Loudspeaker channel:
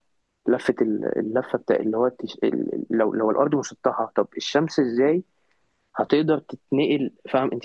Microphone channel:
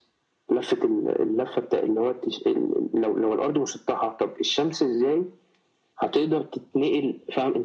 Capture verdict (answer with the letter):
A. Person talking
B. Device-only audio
B